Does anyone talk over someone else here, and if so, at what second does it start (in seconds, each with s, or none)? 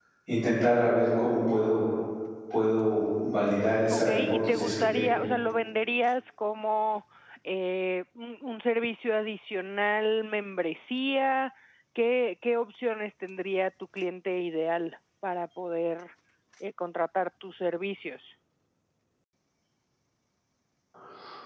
3.9 s